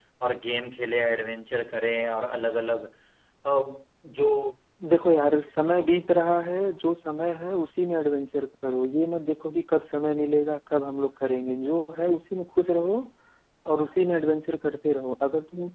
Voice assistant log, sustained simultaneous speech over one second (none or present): none